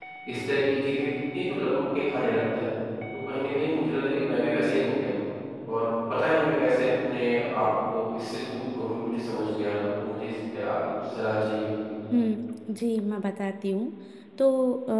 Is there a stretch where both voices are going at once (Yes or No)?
No